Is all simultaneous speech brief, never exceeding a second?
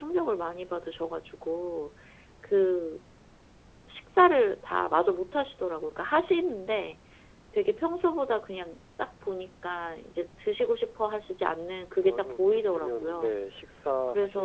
No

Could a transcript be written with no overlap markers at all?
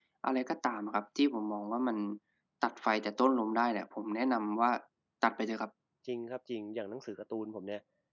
Yes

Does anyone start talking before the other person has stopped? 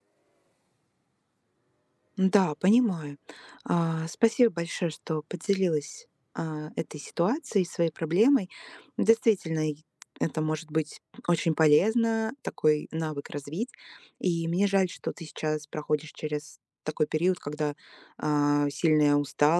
No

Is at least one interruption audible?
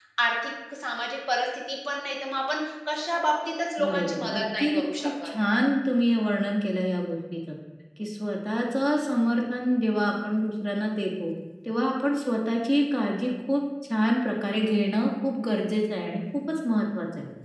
Yes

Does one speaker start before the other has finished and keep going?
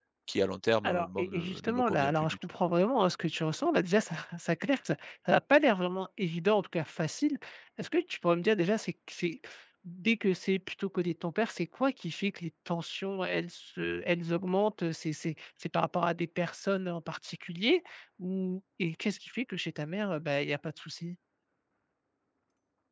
Yes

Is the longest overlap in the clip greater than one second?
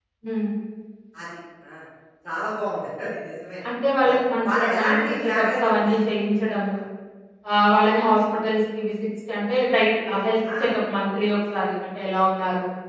Yes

